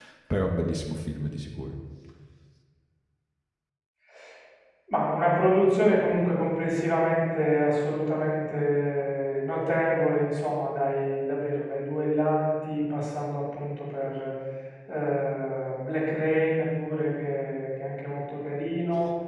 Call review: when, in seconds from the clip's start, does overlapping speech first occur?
none

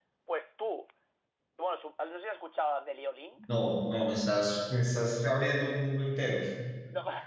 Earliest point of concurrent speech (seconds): none

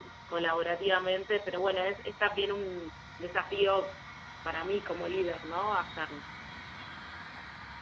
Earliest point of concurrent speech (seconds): none

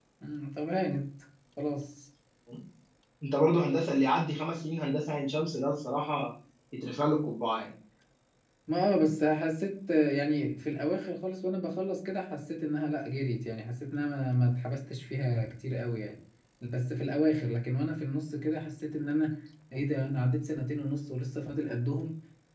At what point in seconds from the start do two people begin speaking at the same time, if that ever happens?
none

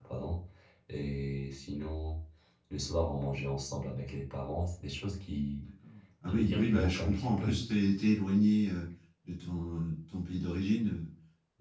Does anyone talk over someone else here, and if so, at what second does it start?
6 s

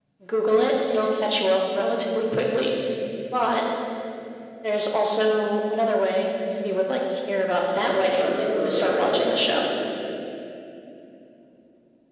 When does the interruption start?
8 s

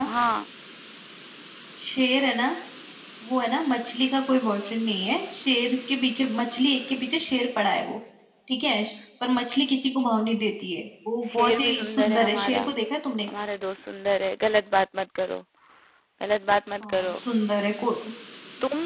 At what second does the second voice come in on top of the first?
11 s

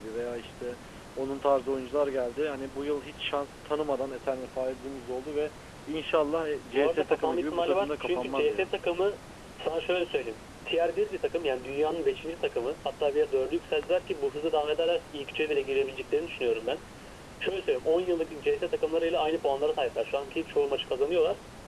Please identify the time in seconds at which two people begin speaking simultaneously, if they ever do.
7 s

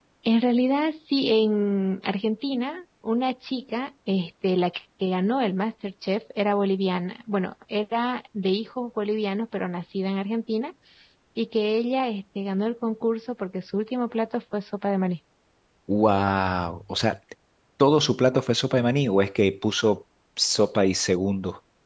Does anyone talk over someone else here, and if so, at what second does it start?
none

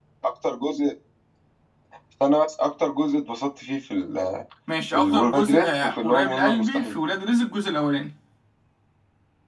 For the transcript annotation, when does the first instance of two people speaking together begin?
5 s

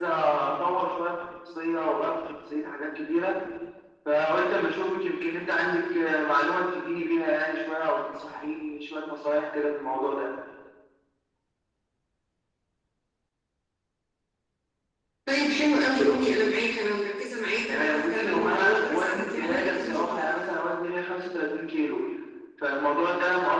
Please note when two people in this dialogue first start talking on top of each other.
18 s

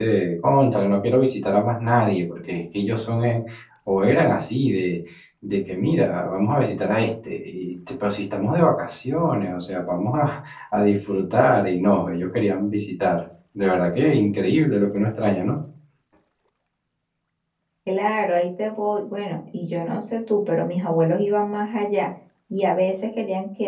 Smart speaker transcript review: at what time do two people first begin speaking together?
none

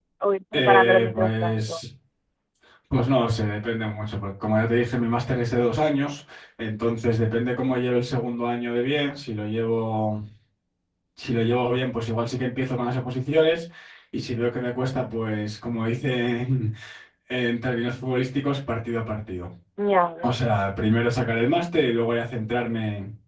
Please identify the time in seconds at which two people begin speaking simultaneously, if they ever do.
1 s

